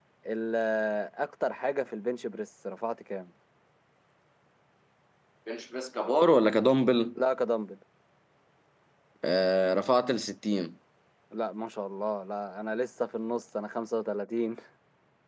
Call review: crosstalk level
none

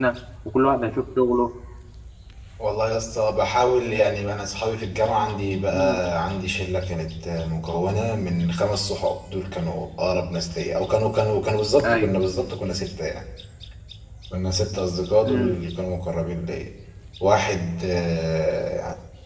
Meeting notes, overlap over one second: none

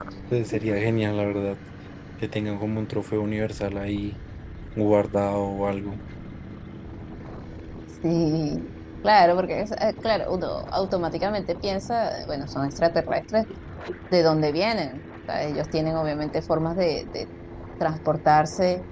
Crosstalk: none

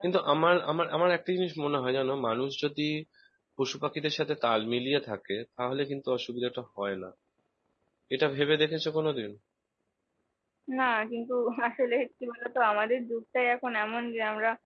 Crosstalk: none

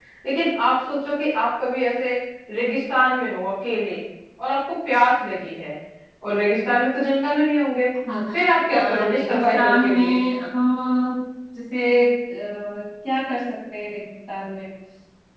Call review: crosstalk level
present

